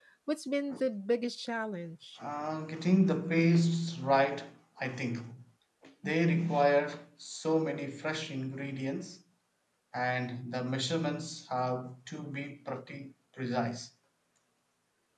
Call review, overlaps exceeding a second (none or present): none